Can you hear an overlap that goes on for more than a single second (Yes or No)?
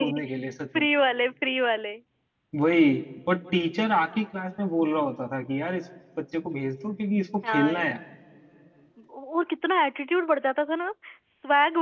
No